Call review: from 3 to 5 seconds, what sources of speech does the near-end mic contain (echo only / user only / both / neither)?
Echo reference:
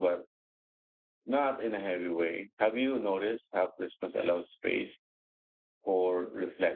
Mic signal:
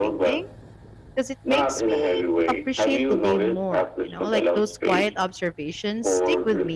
both